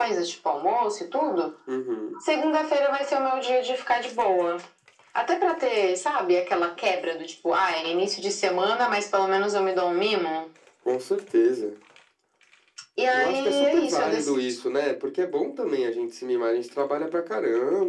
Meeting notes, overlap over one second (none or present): present